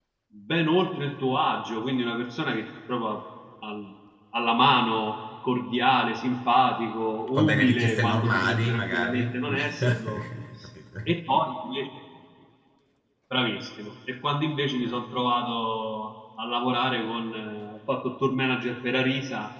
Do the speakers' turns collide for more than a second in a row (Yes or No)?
Yes